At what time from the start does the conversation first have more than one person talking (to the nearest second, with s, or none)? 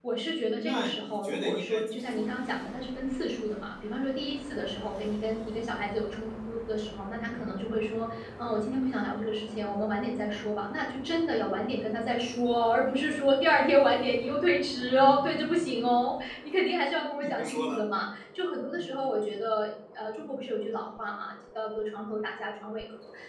1 s